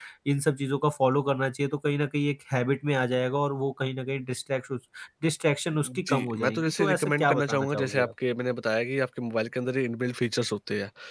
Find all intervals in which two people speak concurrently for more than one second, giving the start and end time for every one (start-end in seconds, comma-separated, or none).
5.8-8.1